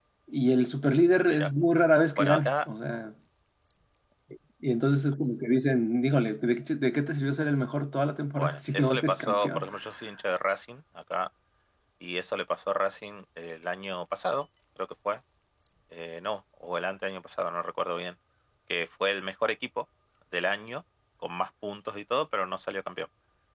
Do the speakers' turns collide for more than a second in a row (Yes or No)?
Yes